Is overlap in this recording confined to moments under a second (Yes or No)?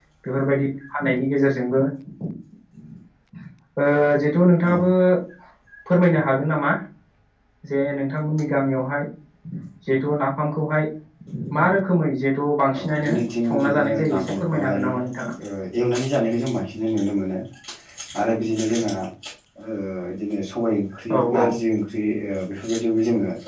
No